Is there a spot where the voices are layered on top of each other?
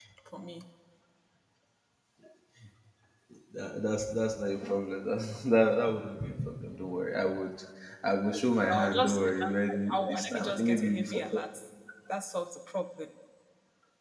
Yes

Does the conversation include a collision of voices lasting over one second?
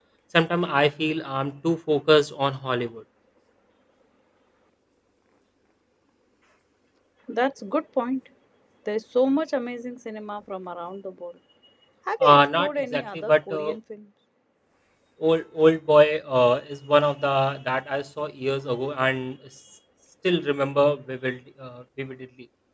Yes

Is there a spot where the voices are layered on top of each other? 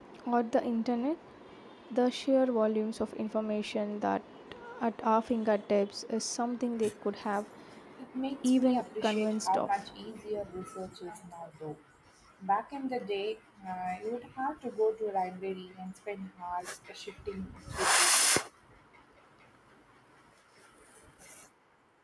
Yes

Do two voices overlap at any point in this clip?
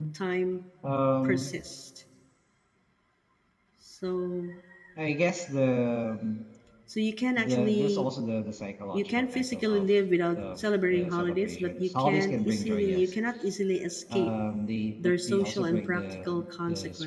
Yes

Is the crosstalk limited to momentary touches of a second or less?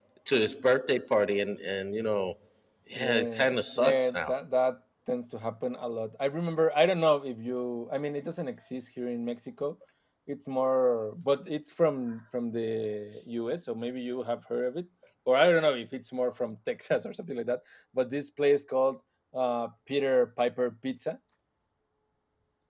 No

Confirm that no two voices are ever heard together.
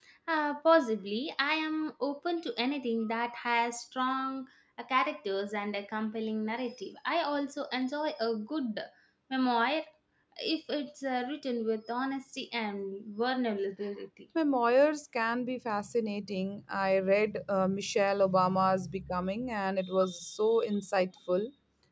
Yes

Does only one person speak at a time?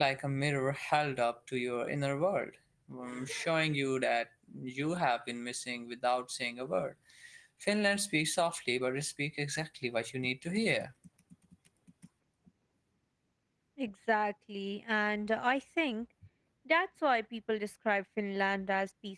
Yes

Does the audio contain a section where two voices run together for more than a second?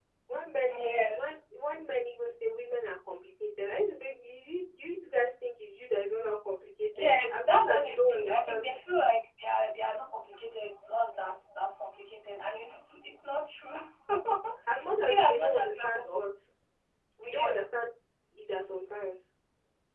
Yes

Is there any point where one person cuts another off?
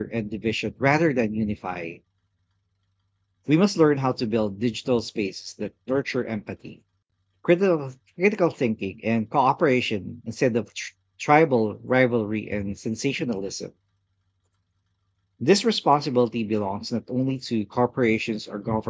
No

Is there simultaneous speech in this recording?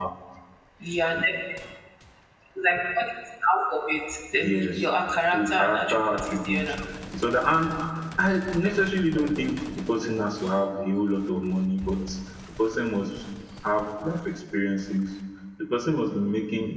Yes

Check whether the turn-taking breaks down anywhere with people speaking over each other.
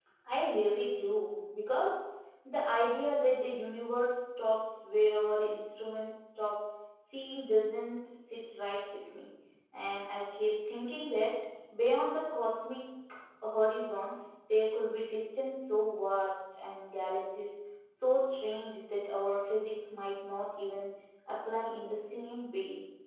No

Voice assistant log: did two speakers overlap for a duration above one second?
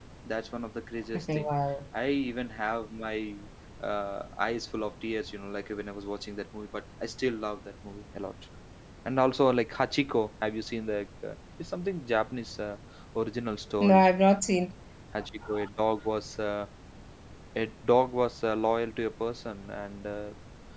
No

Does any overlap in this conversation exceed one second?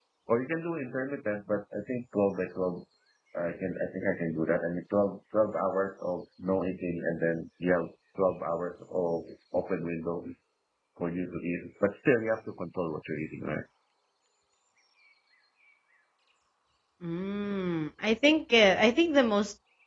No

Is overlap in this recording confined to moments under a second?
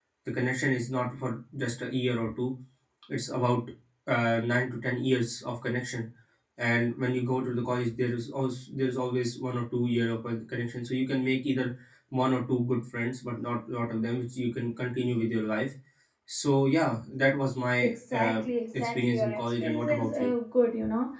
No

